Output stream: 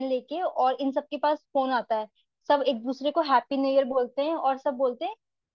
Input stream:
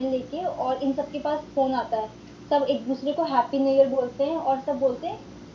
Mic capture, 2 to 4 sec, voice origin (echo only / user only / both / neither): echo only